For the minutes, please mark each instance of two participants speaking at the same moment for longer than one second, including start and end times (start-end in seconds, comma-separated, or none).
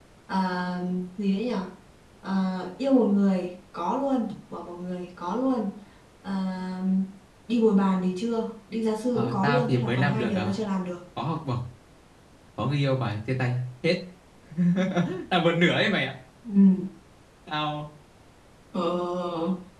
9.1-10.5